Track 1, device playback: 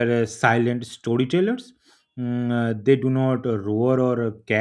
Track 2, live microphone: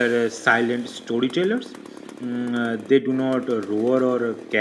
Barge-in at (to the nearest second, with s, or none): none